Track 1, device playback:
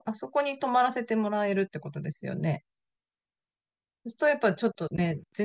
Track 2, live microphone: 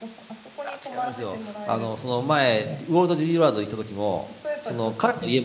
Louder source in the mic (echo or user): user